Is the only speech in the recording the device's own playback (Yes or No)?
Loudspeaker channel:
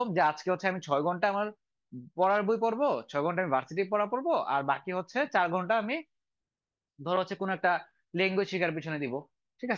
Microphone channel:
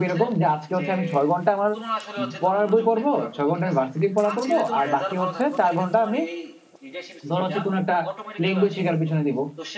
No